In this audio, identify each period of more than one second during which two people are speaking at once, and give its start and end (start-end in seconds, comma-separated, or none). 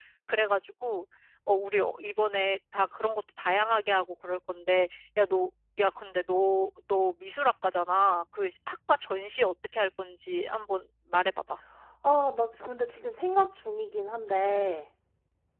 none